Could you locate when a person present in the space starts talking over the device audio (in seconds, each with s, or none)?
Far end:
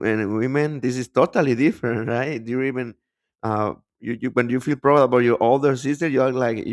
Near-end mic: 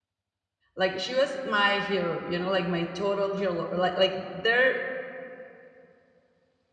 0.8 s